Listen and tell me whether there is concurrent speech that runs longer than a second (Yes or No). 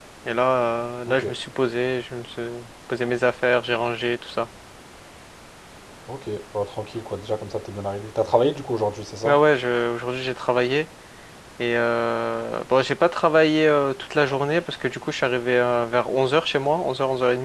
No